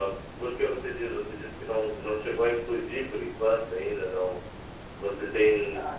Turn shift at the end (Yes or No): No